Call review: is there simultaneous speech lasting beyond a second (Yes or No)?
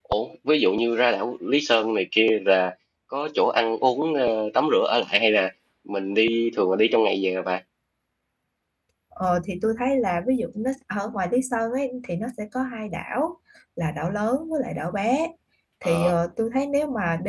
No